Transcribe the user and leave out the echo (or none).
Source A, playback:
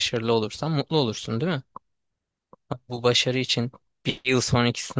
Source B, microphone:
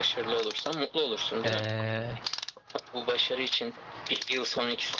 eee,